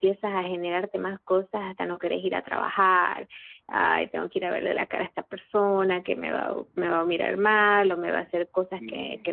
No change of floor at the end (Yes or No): Yes